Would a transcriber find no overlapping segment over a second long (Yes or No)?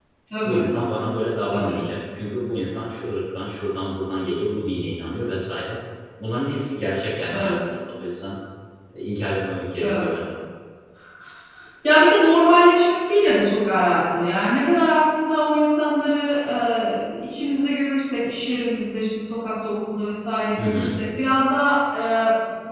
Yes